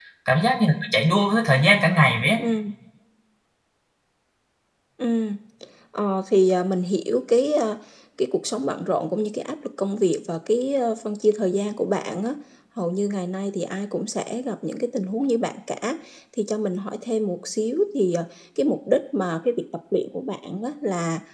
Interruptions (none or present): none